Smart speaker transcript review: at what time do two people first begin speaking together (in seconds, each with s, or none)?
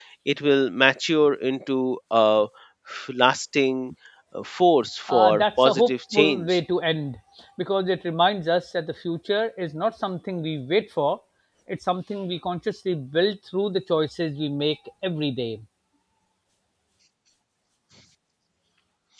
5.1 s